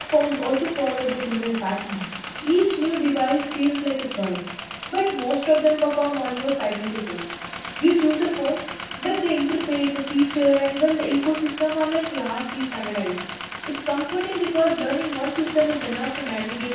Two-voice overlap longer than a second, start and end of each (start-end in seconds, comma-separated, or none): none